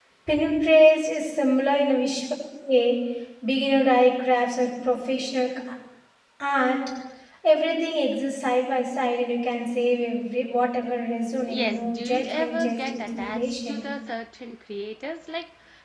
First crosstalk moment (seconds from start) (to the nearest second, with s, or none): 11 s